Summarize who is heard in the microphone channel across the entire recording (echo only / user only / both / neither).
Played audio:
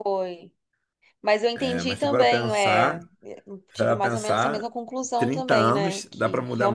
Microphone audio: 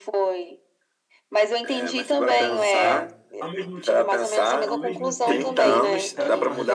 both